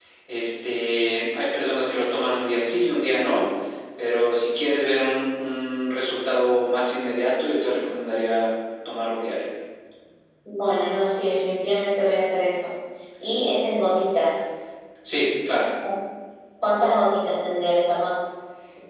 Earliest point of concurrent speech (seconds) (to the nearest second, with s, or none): none